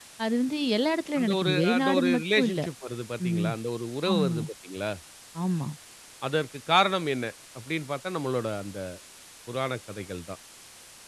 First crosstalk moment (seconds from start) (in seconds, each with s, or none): 1.2 s